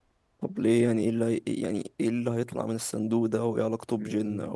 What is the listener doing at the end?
taking over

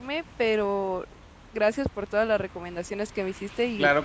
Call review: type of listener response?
taking over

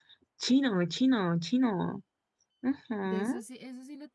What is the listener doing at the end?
taking over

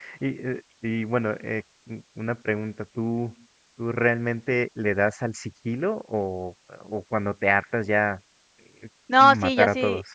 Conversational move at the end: taking over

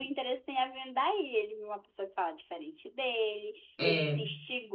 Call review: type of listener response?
listening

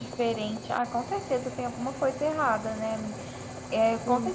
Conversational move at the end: listening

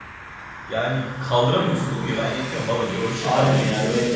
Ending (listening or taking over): taking over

